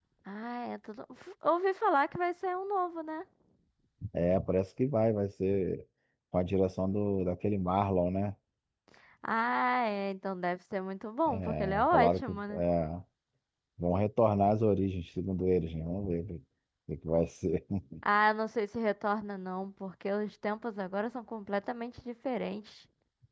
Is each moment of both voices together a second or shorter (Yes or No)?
No